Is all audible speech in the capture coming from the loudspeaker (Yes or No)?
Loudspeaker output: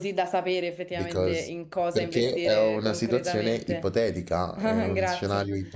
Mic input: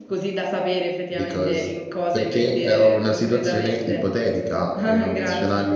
Yes